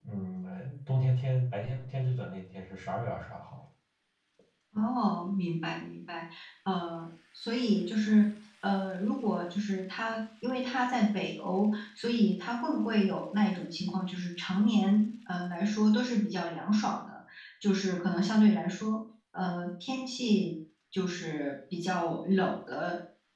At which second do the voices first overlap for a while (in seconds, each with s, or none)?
none